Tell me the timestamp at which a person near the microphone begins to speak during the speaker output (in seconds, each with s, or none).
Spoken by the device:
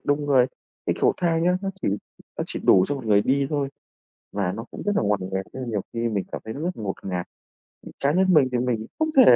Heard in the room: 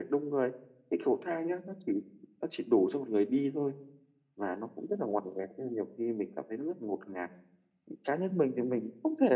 none